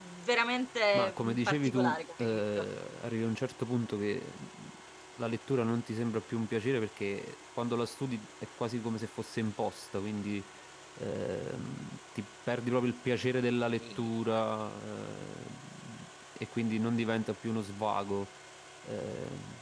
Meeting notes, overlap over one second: present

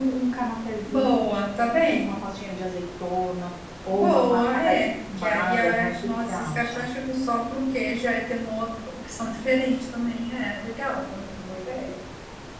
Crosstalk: present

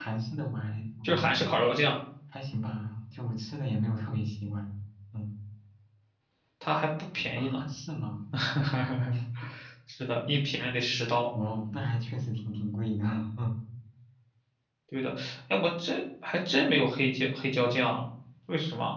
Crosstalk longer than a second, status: none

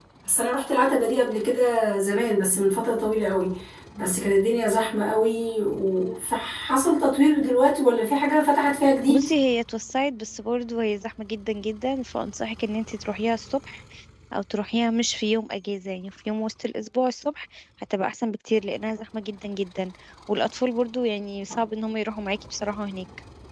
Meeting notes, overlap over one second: none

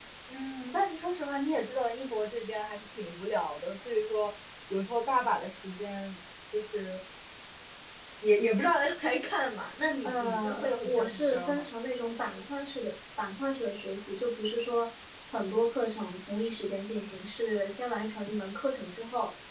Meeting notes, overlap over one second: present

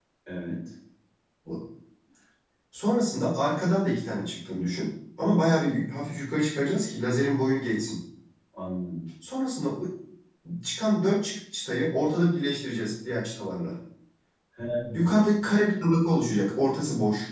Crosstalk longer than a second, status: none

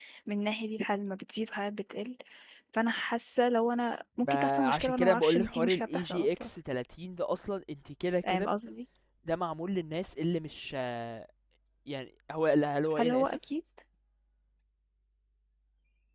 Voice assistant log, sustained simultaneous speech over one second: present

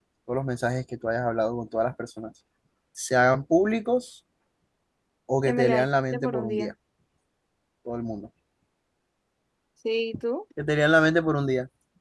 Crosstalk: present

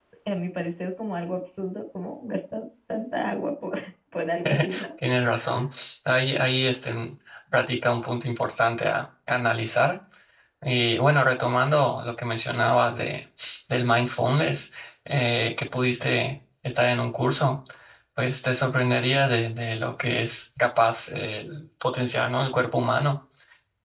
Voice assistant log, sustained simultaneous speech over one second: none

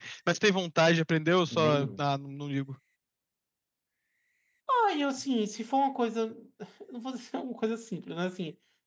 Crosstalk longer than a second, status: none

